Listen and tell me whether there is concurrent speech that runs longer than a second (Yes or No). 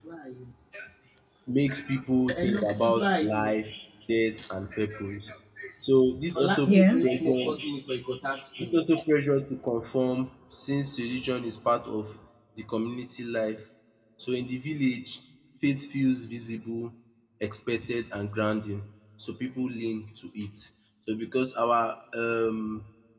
Yes